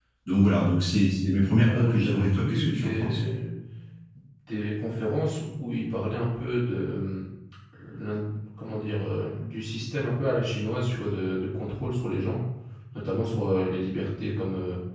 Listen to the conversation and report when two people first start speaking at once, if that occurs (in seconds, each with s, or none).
1.6 s